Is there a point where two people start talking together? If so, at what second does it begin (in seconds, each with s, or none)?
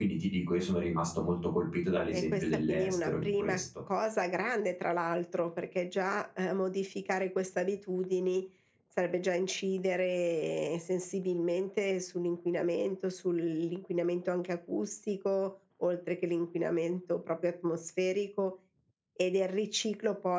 2.0 s